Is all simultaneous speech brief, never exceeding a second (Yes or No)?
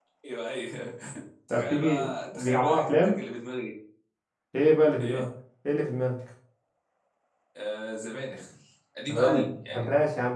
No